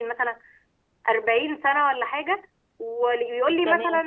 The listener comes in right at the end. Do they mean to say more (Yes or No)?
No